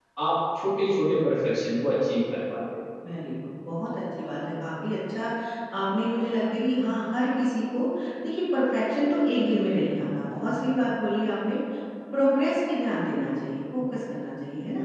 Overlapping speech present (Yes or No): No